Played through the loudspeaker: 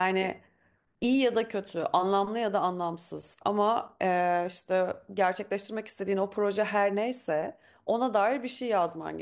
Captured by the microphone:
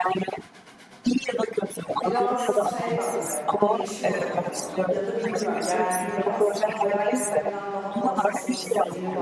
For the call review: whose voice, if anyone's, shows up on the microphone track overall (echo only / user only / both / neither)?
both